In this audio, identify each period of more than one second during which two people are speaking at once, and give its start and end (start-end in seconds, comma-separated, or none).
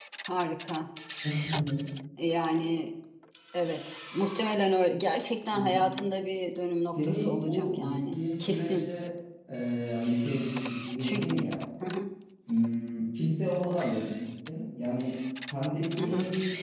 6.9-8.9